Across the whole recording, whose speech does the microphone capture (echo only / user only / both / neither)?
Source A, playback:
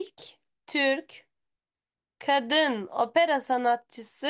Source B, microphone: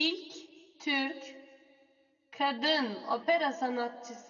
echo only